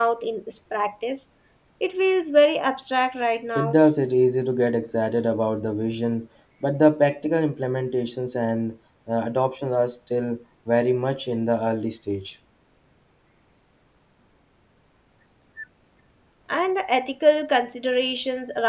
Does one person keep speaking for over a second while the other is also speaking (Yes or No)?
No